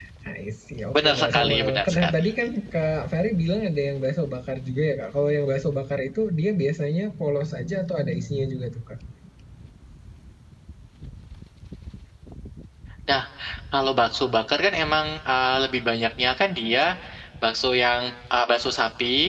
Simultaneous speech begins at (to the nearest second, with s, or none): 1 s